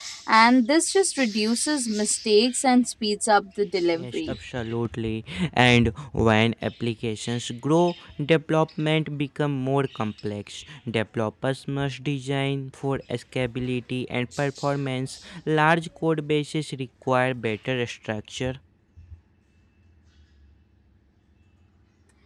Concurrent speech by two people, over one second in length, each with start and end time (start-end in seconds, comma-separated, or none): none